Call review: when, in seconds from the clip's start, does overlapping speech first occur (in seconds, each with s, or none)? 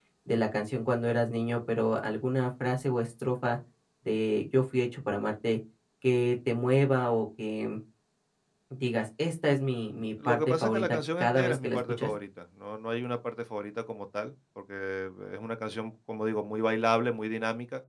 10.2 s